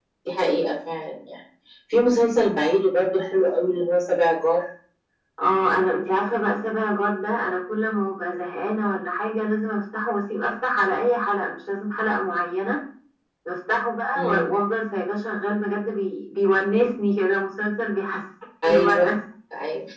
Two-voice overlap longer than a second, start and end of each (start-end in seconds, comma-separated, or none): none